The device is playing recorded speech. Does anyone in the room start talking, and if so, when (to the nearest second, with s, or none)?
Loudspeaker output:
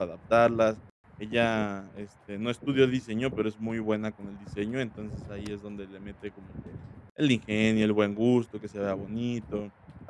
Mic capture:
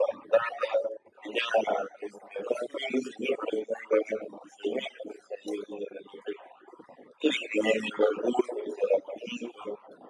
none